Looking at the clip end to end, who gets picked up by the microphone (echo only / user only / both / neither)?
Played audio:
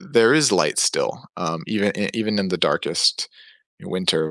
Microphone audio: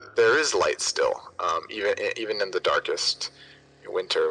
echo only